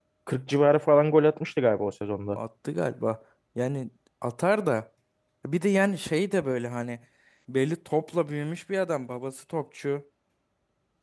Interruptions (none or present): none